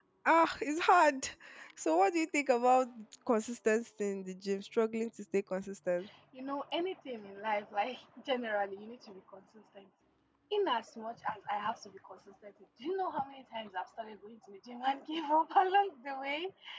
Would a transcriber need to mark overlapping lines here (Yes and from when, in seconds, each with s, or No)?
No